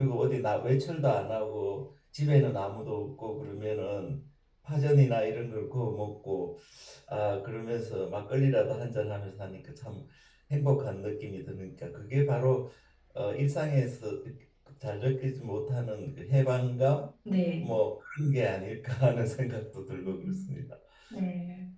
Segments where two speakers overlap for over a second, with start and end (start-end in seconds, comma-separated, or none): none